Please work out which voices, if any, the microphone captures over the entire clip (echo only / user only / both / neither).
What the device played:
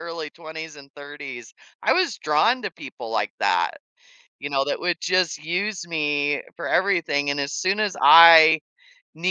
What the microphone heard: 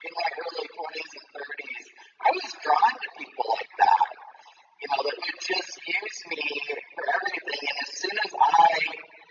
echo only